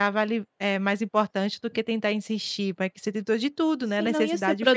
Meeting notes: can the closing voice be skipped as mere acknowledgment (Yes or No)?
No